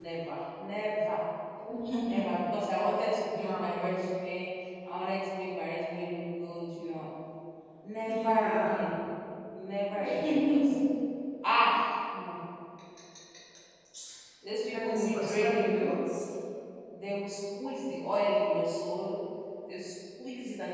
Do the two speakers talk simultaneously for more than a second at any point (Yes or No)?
Yes